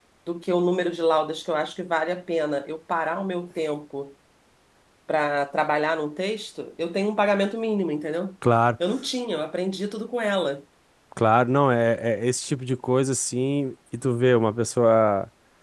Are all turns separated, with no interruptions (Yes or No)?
Yes